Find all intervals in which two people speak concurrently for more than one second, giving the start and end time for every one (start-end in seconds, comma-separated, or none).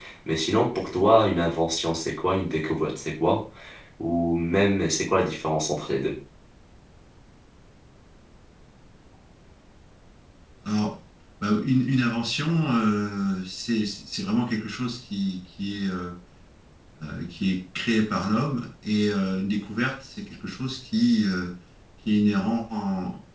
none